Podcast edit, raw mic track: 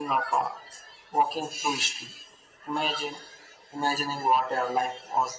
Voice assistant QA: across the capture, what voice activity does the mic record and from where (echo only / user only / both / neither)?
echo only